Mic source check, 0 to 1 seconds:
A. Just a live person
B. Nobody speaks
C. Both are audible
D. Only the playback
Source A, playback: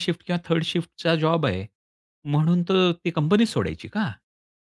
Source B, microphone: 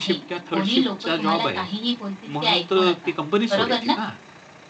C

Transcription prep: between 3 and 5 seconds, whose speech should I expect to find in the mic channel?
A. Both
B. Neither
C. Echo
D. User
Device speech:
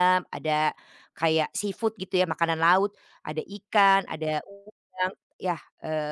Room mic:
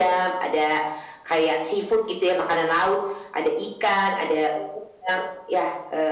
C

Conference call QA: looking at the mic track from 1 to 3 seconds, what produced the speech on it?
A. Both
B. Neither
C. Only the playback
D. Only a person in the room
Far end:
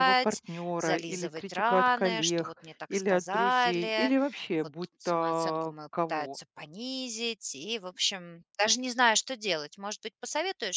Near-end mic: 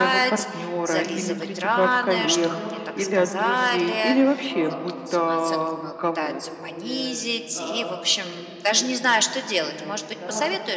A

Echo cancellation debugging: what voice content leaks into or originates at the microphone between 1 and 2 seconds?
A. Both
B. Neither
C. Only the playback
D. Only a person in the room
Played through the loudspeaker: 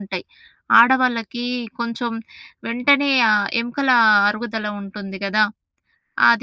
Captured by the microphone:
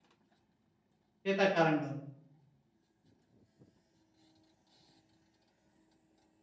D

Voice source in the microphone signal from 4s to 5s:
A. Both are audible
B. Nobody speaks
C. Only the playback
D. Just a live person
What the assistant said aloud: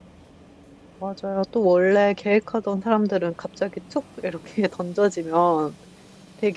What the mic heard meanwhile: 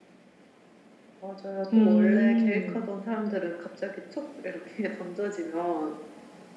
C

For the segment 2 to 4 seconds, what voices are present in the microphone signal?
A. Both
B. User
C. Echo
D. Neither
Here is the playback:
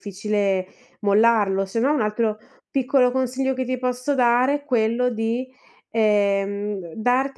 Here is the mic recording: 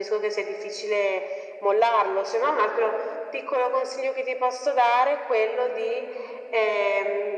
C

